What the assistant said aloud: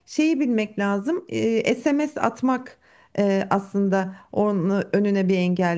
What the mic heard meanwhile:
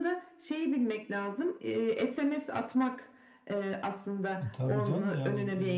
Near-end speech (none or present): present